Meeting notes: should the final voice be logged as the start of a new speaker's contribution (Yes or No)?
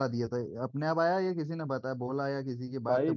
Yes